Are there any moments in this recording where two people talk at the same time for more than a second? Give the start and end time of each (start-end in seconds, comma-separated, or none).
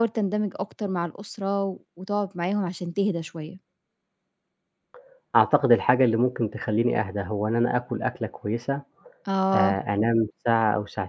none